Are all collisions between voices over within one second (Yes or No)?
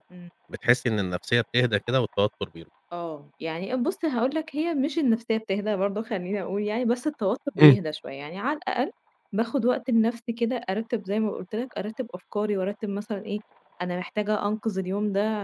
Yes